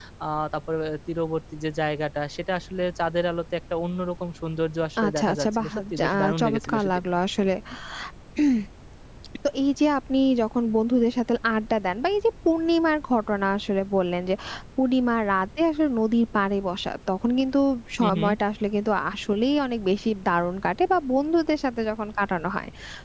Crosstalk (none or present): present